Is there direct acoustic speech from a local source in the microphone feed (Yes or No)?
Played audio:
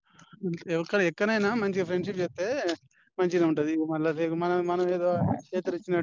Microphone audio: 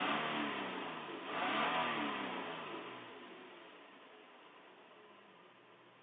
No